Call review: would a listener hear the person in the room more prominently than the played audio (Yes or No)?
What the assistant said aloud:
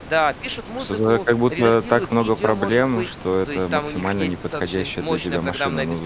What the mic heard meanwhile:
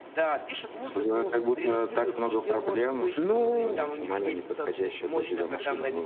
Yes